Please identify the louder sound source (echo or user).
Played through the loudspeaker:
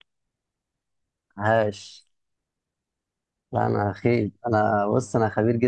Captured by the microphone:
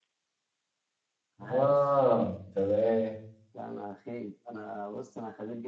user